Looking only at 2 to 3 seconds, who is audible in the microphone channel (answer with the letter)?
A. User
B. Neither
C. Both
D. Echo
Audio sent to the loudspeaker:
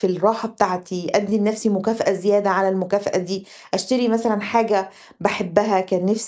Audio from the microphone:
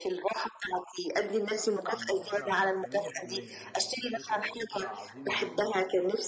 C